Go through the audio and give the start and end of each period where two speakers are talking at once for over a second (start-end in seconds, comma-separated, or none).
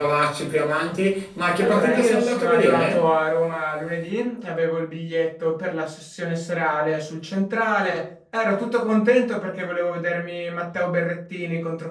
1.6-3.1